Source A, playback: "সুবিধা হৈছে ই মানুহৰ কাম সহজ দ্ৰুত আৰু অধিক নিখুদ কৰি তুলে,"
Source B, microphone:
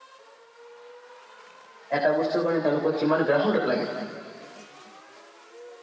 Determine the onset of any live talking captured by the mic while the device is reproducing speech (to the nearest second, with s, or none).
2 s